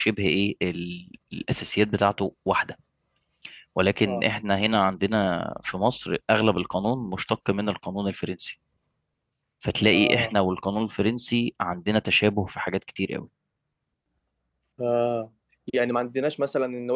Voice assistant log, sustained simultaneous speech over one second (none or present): none